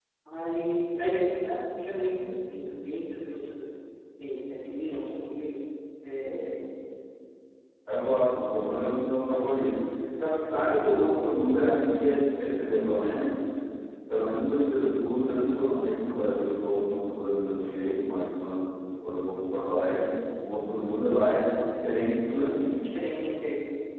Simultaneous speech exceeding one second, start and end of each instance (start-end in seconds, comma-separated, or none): none